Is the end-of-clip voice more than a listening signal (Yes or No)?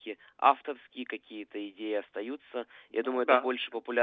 No